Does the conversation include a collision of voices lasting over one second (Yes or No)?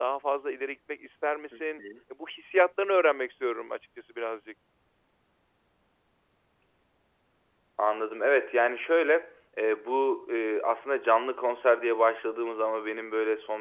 No